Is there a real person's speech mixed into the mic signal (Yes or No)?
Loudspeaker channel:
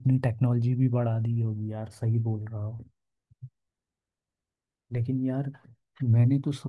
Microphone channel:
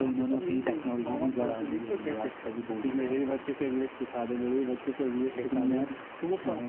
Yes